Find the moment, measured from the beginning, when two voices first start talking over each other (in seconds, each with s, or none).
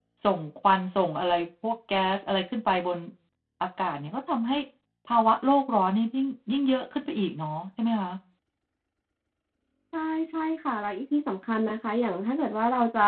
none